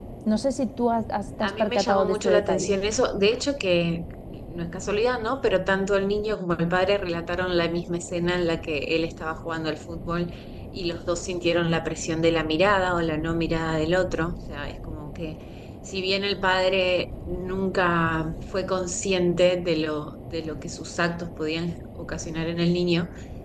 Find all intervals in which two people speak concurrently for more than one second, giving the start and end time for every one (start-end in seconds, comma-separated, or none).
1.4-2.8